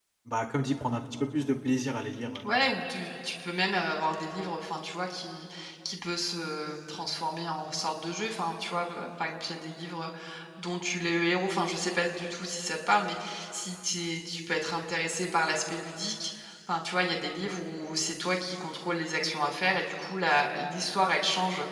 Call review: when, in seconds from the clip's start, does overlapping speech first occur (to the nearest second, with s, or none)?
none